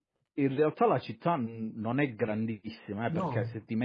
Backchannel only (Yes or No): Yes